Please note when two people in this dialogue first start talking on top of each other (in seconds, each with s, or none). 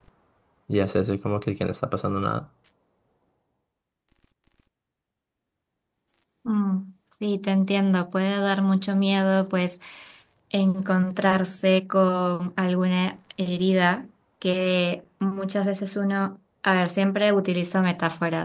none